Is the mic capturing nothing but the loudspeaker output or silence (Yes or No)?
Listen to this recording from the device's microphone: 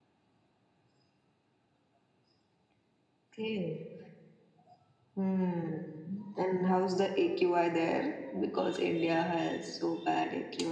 Yes